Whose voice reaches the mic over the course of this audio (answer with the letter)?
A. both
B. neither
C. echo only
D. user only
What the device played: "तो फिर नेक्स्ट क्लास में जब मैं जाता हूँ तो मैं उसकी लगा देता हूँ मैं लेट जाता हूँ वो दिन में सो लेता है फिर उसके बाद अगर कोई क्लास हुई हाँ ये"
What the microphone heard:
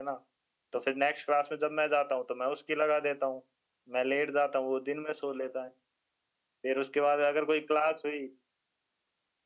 C